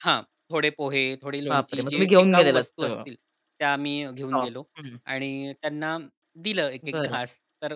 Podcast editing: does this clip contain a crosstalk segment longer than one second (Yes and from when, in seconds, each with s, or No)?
Yes, from 1.5 s